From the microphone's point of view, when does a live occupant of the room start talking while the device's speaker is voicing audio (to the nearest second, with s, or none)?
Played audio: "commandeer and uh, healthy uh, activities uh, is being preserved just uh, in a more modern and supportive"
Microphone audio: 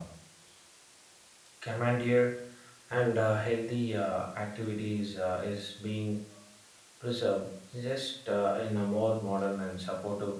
none